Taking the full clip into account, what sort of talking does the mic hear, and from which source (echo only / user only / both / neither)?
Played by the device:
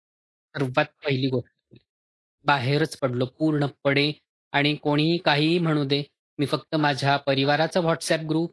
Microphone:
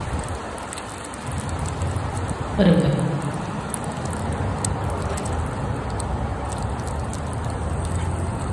user only